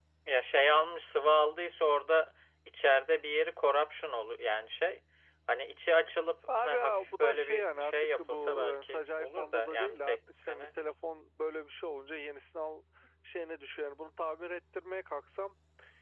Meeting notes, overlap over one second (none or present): present